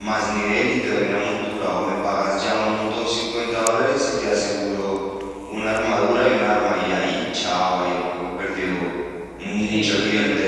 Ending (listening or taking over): taking over